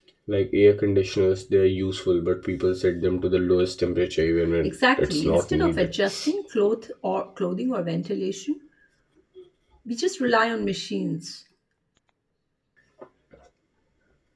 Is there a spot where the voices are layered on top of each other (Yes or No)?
Yes